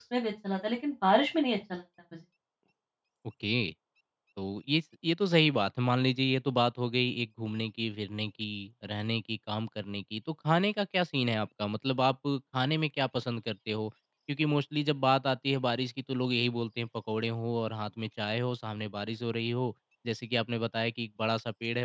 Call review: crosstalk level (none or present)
none